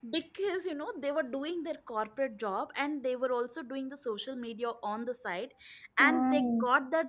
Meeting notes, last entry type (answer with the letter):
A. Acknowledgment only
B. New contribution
A